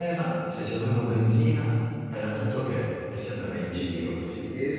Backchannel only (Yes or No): No